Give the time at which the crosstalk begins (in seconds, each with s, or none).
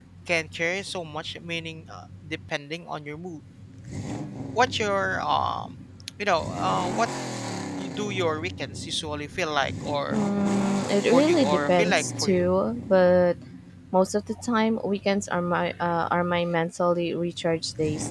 11.1 s